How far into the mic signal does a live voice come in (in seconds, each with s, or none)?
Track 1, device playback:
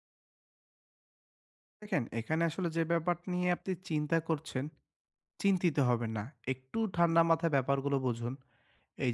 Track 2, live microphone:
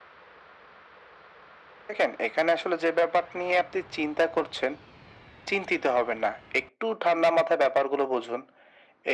none